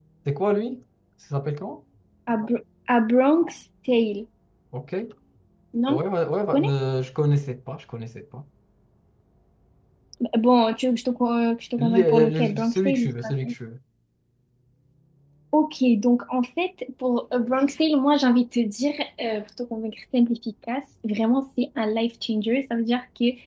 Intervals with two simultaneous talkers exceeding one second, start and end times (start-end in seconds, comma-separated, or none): 11.8-13.5